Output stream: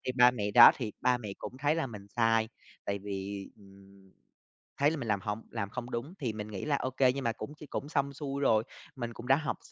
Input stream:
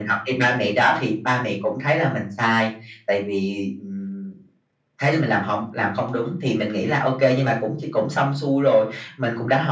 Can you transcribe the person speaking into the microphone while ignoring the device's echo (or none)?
none